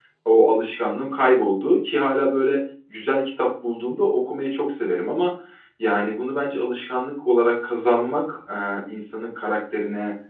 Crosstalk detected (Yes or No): No